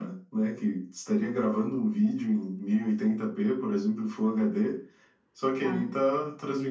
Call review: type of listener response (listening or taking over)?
listening